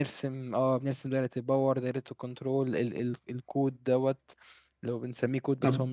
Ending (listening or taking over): taking over